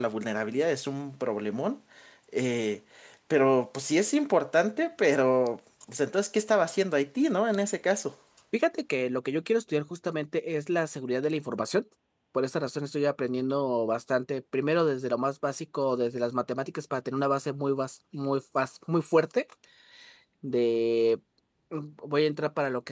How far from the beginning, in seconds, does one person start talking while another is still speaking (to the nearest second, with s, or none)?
none